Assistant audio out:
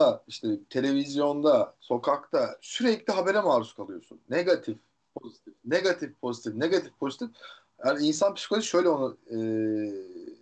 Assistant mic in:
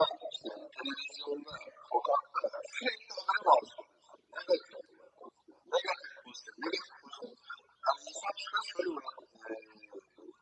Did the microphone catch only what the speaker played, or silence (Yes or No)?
Yes